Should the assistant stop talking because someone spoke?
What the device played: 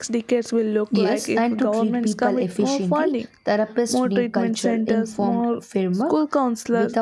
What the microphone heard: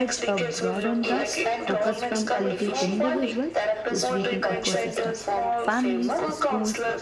Yes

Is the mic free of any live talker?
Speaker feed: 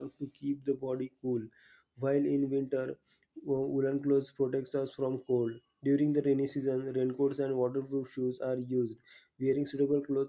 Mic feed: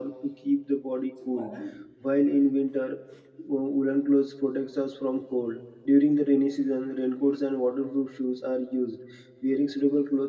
No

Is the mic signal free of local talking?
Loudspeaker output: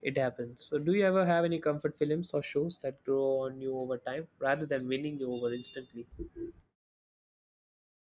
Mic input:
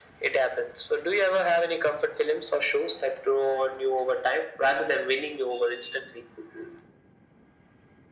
Yes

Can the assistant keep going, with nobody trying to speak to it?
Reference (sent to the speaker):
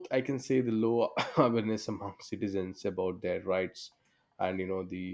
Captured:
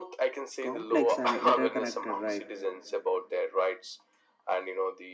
No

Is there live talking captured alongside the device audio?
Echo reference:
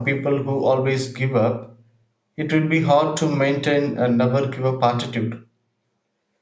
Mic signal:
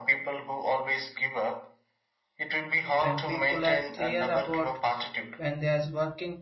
Yes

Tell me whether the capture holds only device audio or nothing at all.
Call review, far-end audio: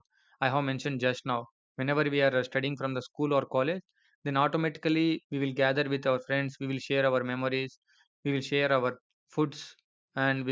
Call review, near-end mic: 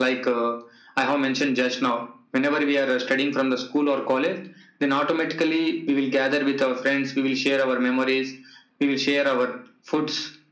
Yes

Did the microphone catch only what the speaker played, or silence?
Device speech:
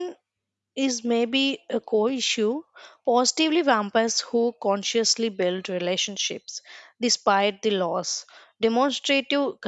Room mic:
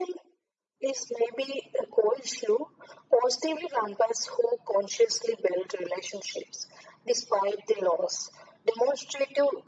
Yes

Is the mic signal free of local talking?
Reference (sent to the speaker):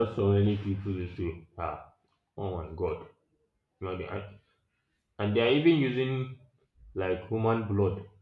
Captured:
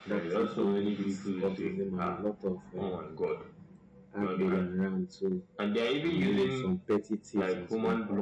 No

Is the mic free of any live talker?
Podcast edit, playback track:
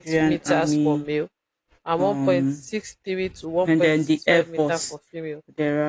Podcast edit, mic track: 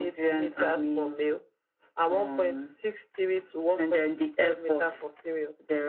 Yes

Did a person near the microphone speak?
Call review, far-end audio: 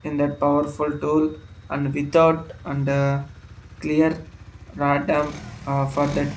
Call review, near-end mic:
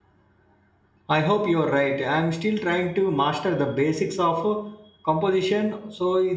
Yes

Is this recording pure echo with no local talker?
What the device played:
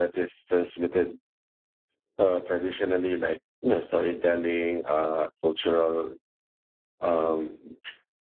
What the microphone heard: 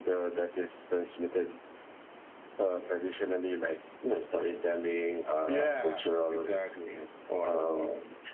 No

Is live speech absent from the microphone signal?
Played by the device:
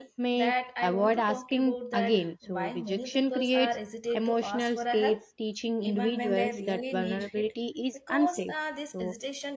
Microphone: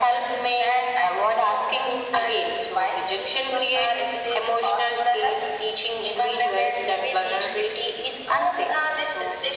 Yes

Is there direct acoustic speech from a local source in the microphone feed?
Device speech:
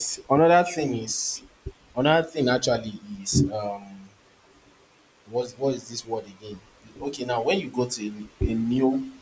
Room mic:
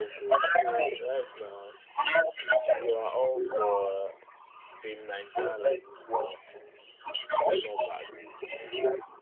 Yes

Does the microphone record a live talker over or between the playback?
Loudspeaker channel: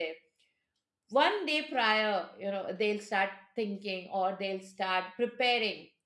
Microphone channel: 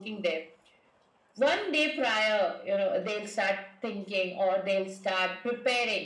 No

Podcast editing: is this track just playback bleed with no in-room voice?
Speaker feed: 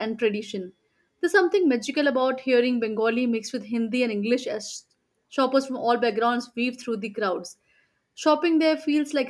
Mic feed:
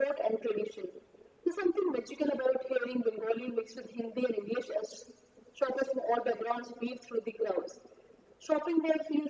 Yes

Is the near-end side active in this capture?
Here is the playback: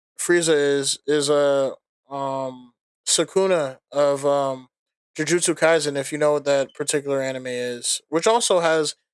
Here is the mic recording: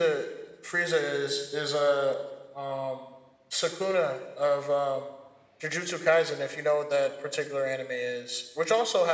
No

